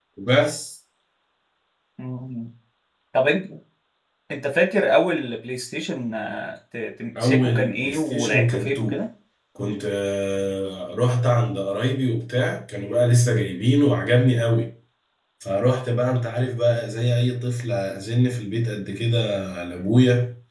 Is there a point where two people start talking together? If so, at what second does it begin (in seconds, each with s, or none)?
7.2 s